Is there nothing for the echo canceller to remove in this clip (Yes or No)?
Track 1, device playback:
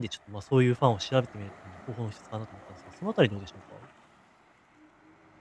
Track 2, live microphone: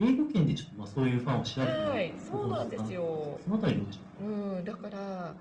No